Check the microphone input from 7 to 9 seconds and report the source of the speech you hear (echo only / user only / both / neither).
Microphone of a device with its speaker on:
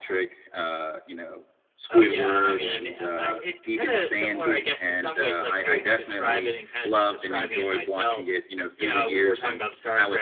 both